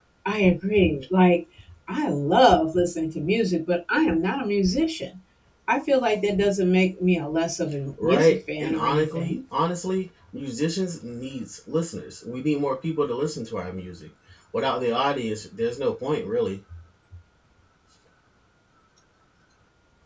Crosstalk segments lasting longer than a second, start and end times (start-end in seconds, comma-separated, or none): 8.0-9.4